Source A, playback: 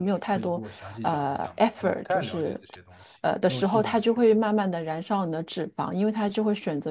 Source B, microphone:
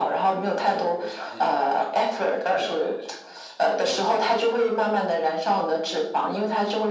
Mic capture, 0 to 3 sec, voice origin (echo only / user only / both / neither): echo only